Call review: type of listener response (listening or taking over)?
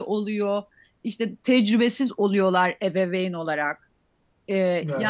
listening